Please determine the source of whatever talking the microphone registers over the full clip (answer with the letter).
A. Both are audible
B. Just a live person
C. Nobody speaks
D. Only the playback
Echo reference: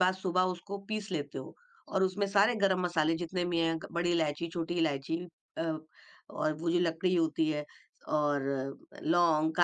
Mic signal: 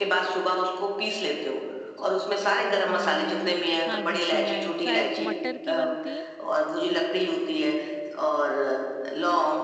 A